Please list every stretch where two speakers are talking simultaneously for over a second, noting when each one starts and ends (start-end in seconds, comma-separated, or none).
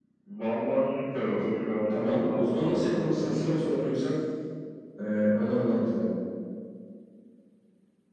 1.9-3.6